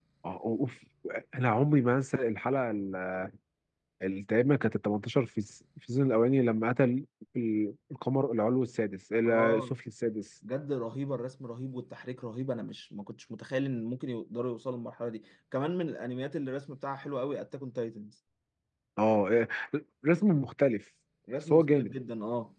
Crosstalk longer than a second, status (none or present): none